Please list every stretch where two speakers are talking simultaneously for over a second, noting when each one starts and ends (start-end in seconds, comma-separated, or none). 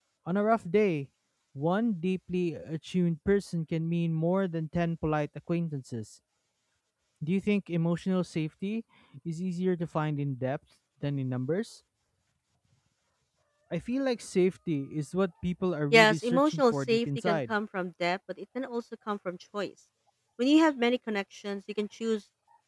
15.9-17.5